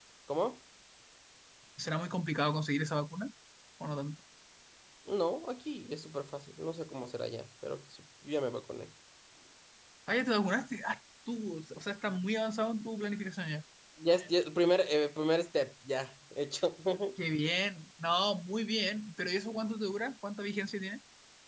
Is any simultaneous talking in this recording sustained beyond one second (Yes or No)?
No